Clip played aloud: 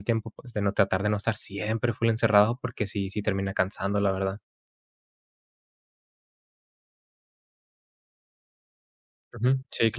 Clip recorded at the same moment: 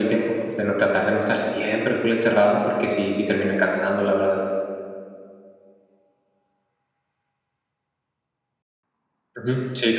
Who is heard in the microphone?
echo only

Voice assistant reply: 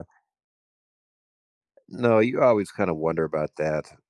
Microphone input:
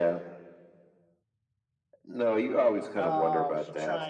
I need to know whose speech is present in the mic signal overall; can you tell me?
both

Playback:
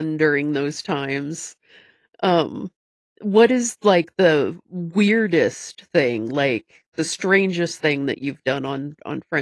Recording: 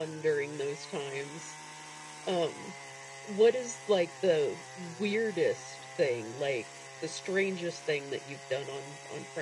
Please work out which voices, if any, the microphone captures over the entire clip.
echo only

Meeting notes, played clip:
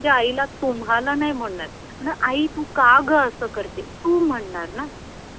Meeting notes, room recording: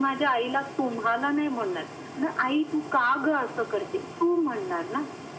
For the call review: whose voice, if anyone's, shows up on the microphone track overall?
echo only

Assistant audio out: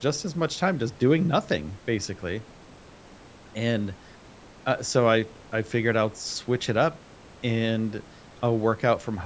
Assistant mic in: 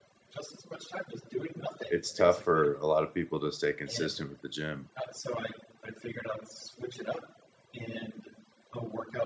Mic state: both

